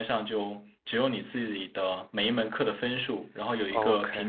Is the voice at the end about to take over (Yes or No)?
No